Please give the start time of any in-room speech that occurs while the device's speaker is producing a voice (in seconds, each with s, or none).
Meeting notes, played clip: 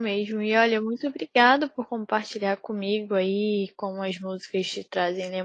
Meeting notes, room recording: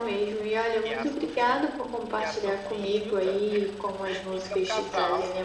0.8 s